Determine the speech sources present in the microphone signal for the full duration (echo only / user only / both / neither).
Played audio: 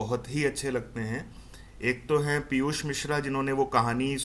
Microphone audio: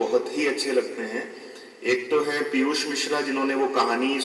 echo only